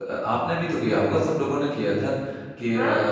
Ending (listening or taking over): listening